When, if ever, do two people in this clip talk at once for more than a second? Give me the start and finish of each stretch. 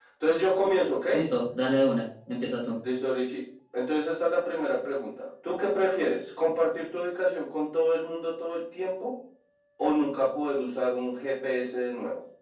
none

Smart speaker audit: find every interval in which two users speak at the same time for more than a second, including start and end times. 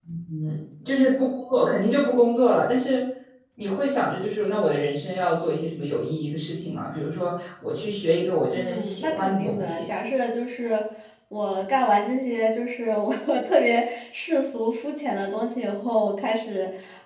8.5-9.8

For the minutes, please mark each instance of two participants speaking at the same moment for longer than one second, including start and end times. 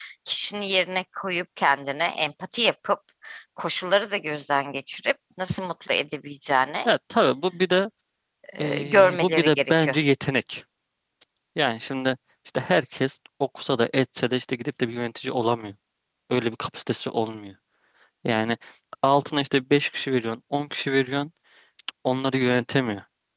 8.6-10.0

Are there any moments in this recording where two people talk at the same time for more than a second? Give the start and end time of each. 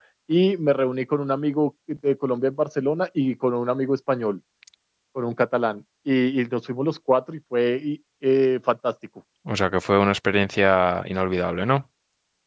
none

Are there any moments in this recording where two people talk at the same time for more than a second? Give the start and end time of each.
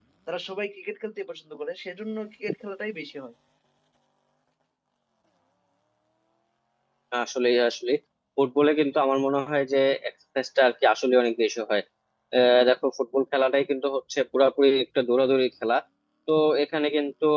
none

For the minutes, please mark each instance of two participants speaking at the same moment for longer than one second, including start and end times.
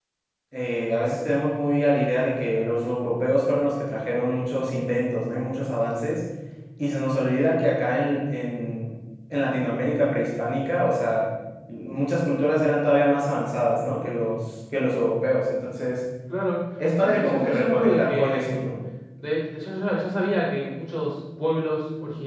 17.0-18.6

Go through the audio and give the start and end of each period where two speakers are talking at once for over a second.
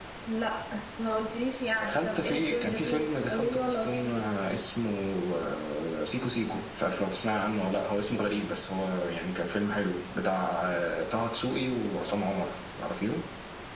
1.8-4.3

